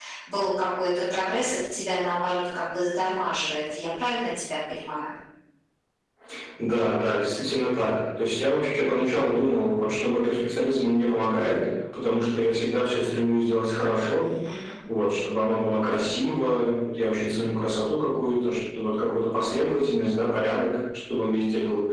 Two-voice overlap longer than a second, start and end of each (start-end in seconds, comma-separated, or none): none